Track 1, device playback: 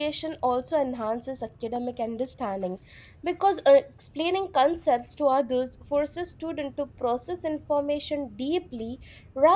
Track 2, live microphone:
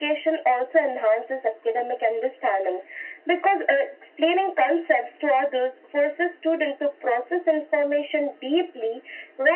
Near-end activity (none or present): none